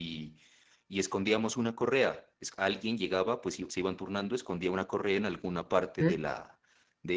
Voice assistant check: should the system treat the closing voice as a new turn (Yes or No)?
No